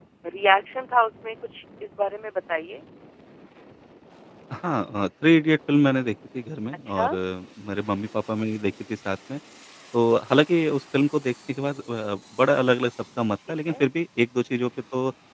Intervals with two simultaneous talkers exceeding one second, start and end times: none

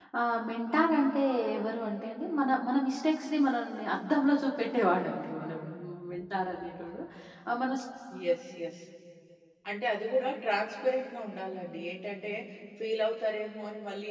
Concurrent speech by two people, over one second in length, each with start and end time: none

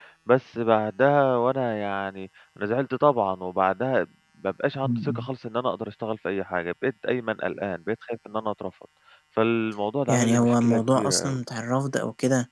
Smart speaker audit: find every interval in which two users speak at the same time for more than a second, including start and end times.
10.1-11.4

